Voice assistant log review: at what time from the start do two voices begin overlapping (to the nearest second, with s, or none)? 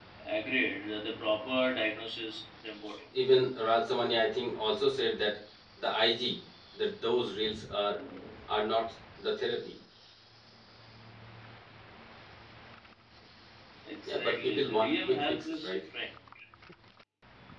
14 s